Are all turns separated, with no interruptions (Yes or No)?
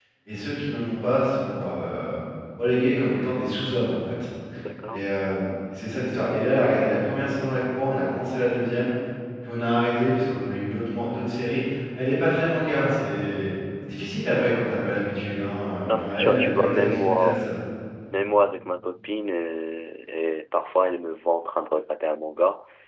No